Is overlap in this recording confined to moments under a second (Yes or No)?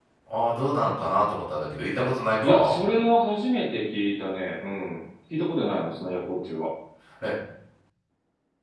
Yes